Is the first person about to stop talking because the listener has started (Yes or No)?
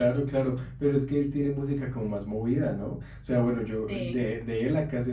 No